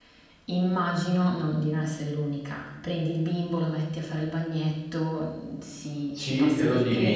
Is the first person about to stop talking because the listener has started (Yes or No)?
Yes